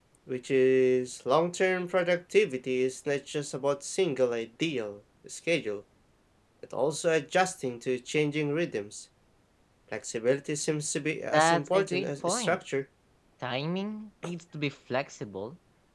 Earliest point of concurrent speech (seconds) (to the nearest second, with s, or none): 11 s